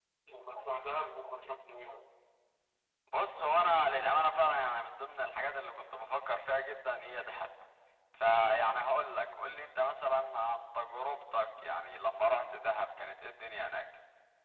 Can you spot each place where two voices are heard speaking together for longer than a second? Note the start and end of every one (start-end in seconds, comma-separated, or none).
none